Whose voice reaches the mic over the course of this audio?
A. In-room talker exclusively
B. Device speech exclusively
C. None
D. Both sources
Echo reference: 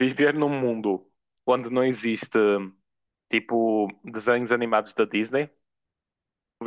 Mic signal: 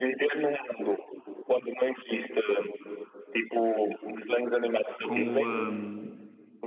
D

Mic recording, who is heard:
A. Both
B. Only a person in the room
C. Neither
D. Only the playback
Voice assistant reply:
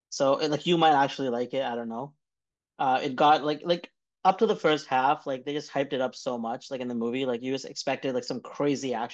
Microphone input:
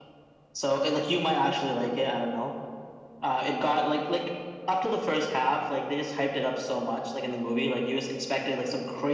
D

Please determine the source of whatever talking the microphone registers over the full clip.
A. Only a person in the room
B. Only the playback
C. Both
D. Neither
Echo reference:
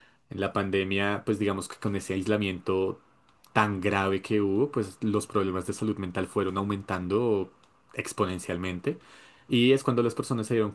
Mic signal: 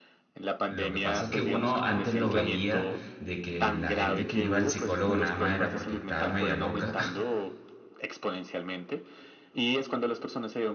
C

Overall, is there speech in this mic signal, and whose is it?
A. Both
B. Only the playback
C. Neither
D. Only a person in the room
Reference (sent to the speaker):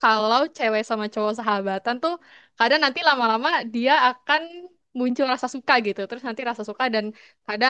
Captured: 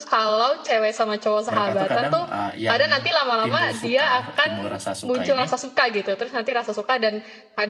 A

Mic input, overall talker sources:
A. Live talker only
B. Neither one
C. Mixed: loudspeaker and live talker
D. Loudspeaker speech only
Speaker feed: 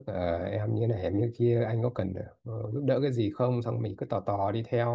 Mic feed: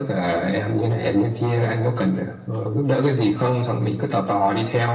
D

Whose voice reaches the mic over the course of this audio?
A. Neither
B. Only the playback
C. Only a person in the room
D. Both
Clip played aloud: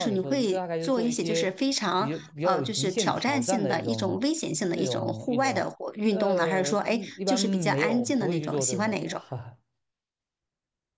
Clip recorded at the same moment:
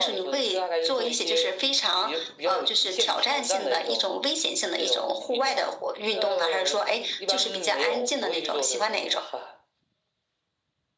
B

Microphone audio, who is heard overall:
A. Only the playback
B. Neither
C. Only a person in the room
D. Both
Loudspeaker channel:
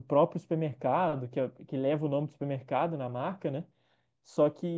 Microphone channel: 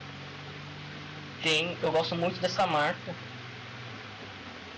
C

